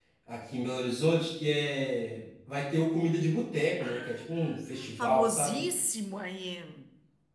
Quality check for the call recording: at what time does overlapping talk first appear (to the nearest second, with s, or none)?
4 s